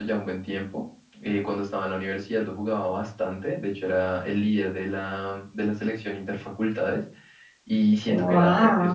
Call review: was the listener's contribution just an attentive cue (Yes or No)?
Yes